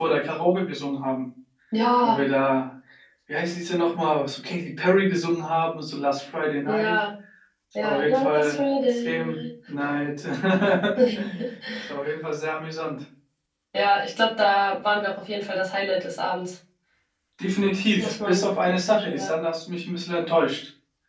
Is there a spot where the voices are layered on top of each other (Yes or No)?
Yes